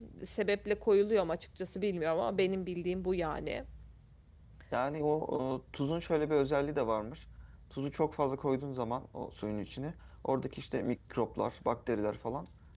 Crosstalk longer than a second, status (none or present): none